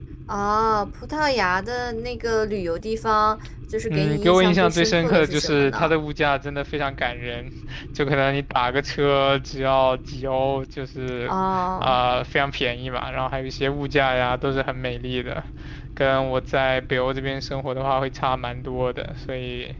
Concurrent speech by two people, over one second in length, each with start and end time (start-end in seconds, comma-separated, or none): 3.9-5.9